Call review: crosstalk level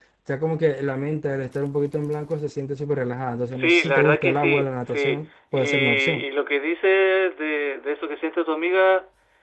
present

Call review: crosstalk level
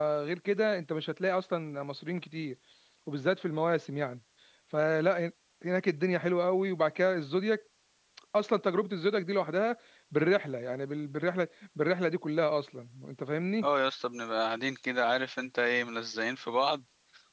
none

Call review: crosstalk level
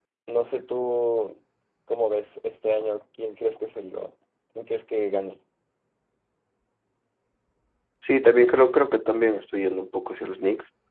none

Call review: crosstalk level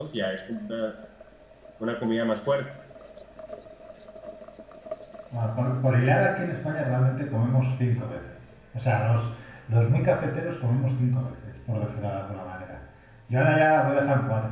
none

